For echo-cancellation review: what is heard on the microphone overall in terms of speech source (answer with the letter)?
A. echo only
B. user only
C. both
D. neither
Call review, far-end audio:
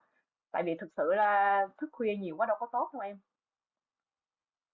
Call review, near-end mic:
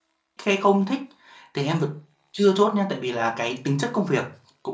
B